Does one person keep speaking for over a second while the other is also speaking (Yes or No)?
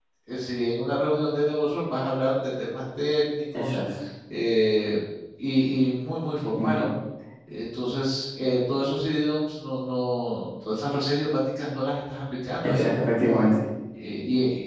No